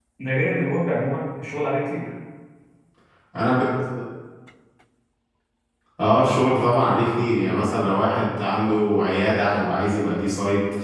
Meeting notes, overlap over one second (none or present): none